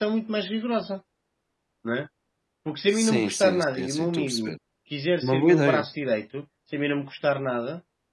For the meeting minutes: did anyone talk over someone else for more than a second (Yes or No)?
Yes